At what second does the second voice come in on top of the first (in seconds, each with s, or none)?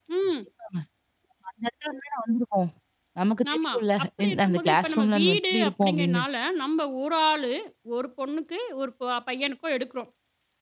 3.5 s